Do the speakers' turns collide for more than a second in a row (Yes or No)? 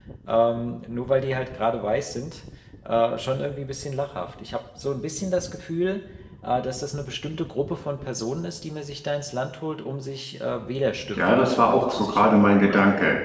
Yes